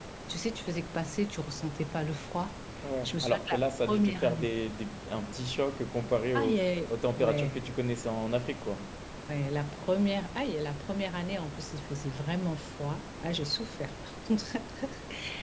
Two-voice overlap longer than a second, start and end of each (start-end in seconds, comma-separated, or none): 3.0-4.5, 6.3-7.6